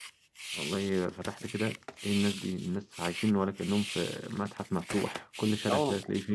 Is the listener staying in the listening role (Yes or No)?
Yes